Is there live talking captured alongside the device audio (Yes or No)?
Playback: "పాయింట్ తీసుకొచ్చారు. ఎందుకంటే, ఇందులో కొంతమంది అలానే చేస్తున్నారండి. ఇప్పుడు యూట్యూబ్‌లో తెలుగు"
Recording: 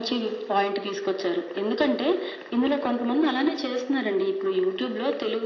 No